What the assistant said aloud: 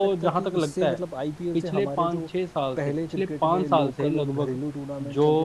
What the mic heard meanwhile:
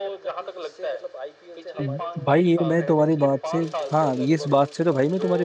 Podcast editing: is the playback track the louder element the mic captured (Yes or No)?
No